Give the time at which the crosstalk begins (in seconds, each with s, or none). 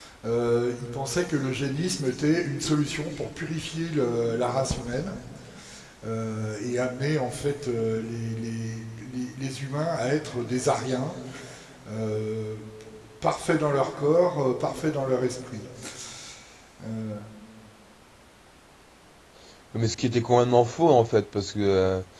none